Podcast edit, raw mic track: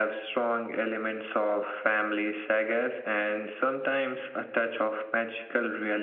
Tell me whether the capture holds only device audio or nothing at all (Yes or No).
Yes